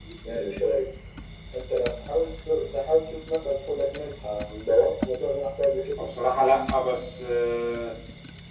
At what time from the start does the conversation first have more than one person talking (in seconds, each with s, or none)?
none